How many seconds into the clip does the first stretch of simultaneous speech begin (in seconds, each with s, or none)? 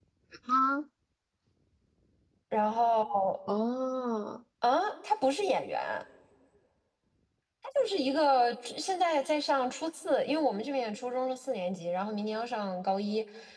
none